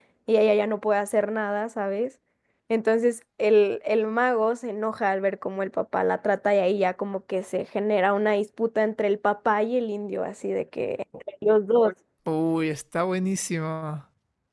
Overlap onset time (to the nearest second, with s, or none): none